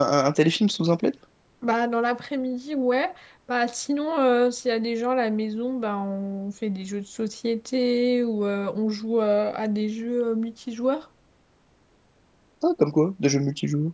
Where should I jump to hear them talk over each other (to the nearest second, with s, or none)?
none